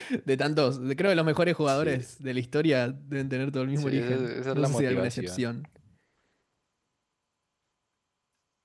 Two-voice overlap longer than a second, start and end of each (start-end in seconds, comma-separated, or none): 3.8-5.5